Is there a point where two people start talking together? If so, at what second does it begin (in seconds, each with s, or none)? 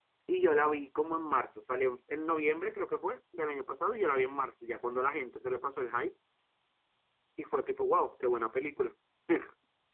none